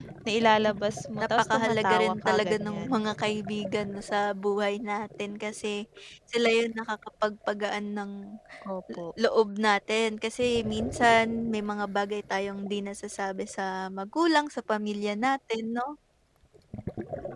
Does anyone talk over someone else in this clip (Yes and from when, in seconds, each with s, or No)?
Yes, from 1.5 s